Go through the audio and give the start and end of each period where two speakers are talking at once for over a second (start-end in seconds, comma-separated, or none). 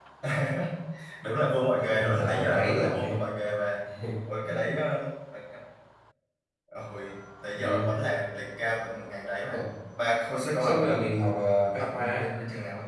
1.8-3.2